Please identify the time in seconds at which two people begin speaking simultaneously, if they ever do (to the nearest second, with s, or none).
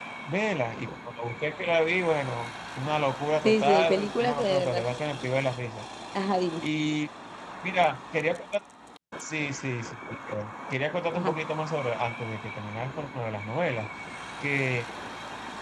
3 s